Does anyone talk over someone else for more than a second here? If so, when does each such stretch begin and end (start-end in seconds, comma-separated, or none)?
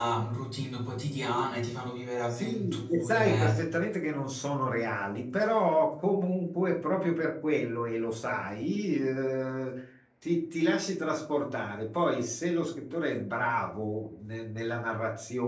2.3-3.5